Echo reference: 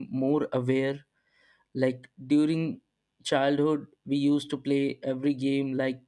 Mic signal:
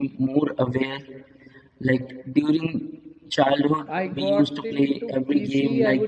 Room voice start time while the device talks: 3.9 s

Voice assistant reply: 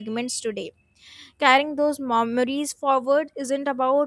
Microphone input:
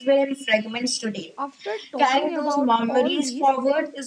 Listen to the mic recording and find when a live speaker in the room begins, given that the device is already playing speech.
1.4 s

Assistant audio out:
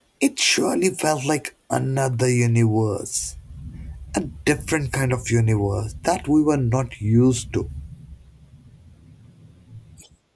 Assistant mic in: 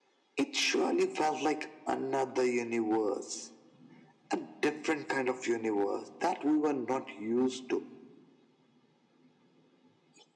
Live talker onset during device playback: none

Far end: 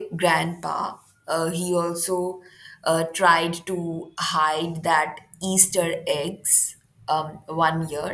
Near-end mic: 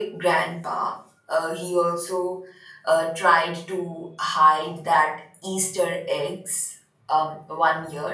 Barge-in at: none

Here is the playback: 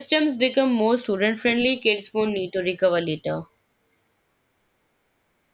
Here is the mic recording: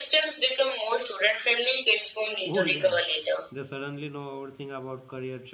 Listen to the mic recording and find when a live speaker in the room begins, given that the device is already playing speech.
2.4 s

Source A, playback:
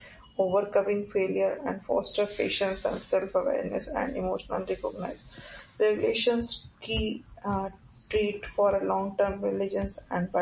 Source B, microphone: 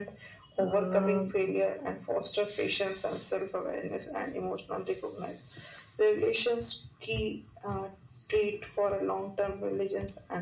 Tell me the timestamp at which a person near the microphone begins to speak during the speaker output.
0.6 s

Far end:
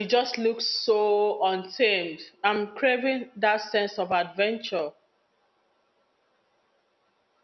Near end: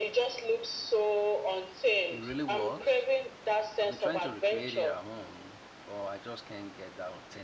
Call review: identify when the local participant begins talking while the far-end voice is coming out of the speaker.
2.1 s

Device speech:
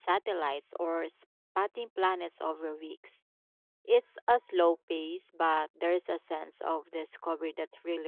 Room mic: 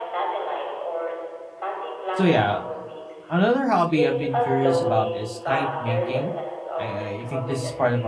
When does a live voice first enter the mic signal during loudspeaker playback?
2.1 s

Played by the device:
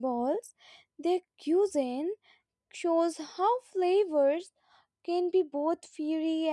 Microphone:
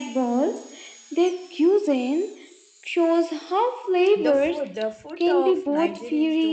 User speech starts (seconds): 4.1 s

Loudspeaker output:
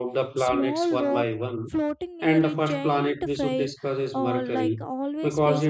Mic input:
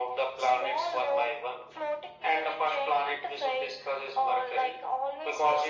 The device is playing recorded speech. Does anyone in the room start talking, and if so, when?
none

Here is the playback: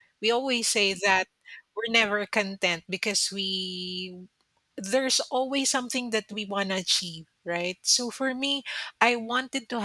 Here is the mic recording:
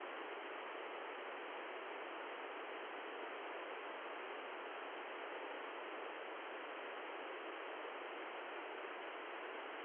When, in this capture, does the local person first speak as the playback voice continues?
none

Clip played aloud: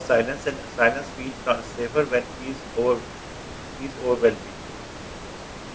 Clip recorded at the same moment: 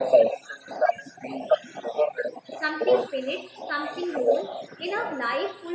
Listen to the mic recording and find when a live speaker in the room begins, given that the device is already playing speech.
2.6 s

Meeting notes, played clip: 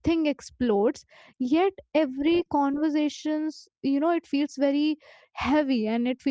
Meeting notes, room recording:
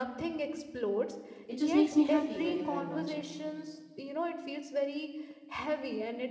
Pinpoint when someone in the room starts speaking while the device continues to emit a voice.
1.5 s

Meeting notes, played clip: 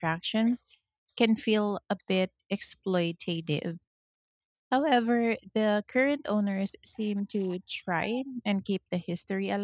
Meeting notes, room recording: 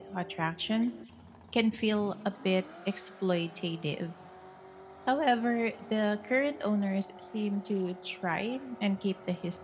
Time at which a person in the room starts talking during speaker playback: none

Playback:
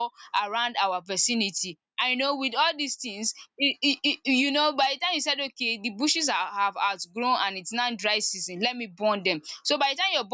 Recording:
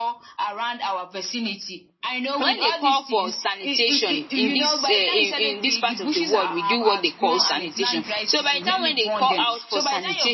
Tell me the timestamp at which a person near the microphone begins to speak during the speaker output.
2.4 s

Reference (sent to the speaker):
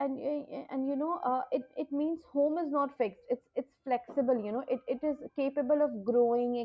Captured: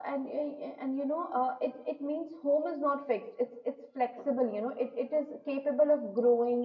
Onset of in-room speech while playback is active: none

